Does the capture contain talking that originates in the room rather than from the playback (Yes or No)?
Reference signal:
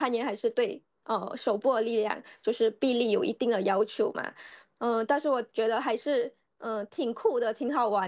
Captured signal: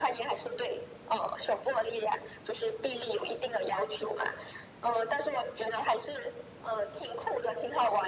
No